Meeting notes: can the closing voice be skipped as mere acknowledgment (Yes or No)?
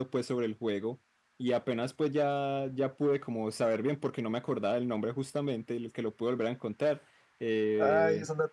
No